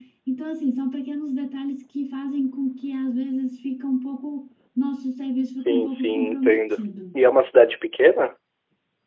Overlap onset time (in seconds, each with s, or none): 5.6 s